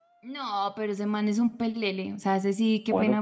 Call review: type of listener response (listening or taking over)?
taking over